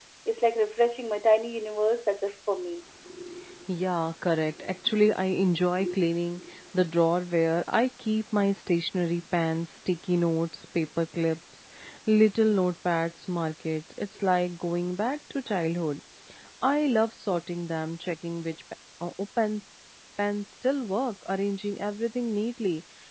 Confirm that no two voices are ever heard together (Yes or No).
Yes